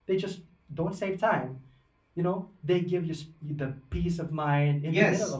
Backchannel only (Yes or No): No